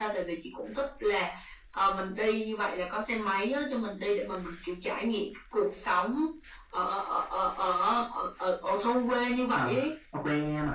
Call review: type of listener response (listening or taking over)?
taking over